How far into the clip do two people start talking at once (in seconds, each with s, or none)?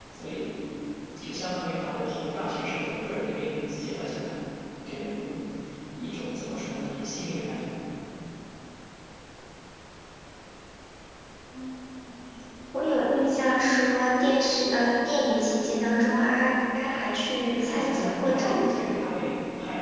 17.6 s